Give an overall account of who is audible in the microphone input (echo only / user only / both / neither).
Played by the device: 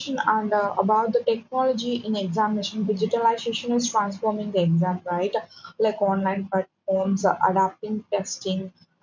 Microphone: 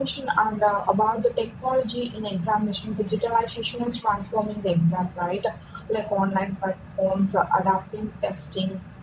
echo only